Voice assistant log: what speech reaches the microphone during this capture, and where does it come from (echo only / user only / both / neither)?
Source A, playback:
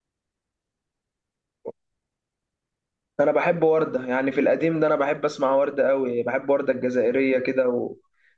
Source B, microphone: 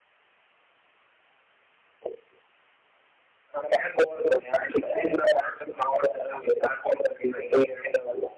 echo only